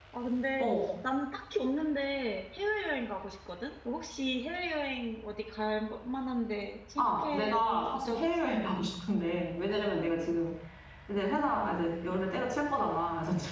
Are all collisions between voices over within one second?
No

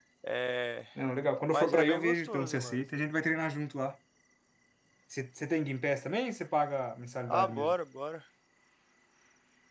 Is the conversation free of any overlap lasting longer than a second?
No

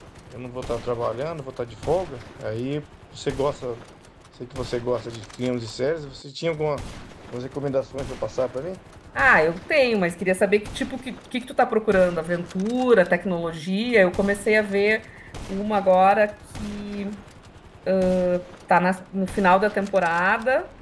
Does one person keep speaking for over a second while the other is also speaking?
No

